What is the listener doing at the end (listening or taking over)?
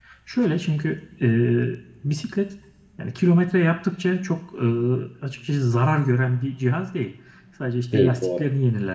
listening